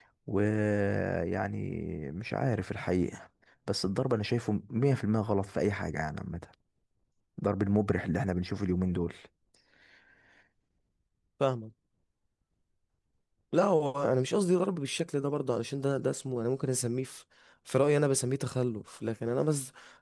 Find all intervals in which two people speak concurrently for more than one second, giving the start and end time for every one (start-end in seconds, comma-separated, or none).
none